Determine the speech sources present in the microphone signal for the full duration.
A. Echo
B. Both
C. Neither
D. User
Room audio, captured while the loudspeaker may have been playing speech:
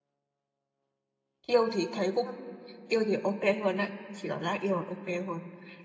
D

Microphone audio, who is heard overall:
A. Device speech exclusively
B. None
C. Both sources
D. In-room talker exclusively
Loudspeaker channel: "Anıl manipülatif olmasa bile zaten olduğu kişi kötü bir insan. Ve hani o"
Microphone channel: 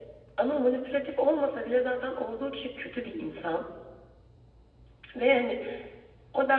A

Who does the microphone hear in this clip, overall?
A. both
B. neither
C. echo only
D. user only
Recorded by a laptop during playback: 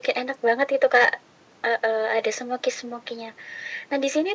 C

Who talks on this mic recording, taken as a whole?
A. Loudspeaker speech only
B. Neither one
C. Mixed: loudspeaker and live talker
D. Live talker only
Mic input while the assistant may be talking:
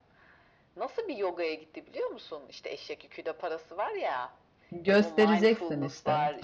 C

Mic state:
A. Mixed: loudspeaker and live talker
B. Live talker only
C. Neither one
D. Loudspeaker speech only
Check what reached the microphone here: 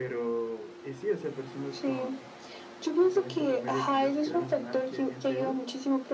D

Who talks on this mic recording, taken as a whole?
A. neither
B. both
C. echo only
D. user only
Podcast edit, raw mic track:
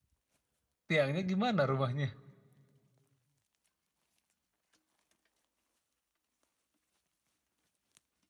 D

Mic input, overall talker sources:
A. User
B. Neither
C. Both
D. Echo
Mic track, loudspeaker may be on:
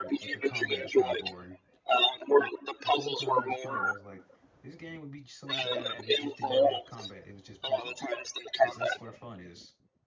C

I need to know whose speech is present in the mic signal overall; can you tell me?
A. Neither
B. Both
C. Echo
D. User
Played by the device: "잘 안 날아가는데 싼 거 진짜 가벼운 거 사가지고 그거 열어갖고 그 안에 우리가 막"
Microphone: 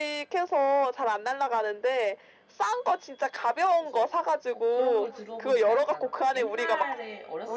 B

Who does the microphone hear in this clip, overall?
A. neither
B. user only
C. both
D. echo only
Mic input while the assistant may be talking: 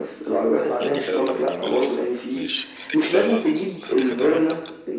C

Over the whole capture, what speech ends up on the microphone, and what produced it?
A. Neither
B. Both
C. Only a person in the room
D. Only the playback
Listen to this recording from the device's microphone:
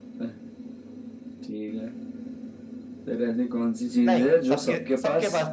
B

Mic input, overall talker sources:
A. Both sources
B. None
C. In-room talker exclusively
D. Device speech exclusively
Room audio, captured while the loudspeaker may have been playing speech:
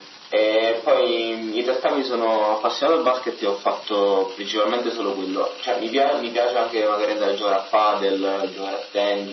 D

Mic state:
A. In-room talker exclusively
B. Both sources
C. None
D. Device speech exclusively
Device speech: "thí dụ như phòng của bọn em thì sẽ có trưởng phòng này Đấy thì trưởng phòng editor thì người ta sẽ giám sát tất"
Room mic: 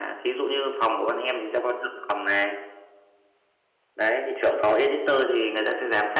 D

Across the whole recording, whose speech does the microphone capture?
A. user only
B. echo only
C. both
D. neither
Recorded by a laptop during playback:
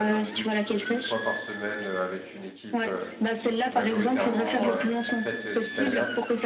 C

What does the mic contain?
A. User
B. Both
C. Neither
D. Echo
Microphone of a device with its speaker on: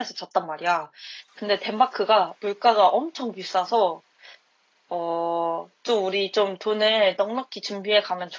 A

